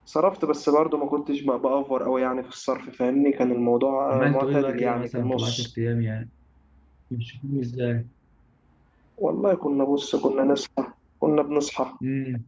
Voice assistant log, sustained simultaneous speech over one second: present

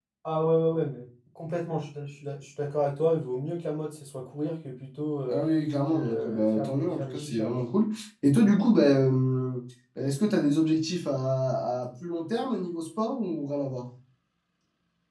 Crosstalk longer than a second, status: present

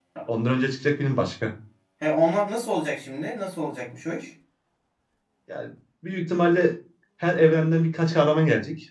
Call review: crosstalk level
none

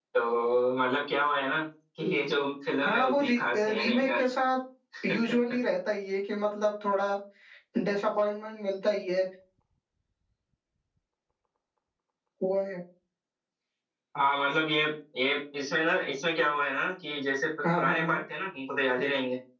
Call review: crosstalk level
present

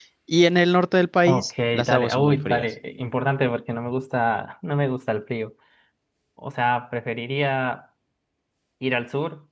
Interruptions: present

